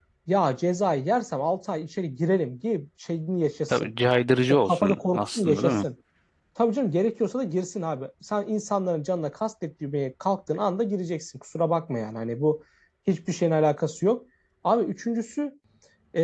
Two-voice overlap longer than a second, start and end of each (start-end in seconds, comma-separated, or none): 4.5-5.8